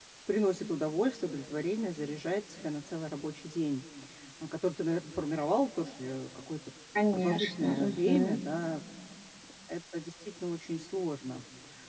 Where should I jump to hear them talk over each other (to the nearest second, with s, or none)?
7 s